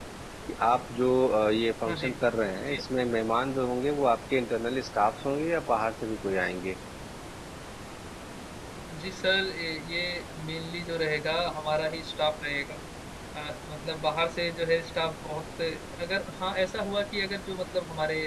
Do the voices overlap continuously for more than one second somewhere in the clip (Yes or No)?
No